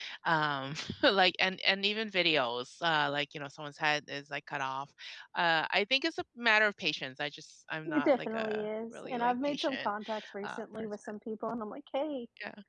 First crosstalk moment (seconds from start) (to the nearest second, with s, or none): 8 s